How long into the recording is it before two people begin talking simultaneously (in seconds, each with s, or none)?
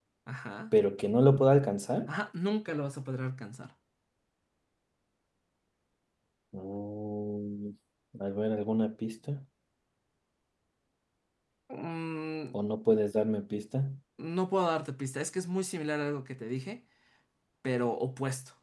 none